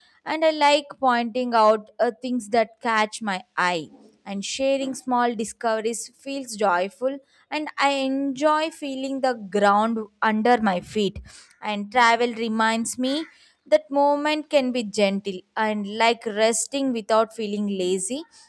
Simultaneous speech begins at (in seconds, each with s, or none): none